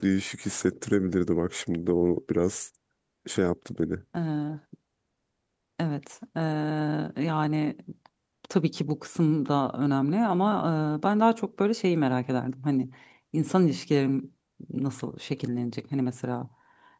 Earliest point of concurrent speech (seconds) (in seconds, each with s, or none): none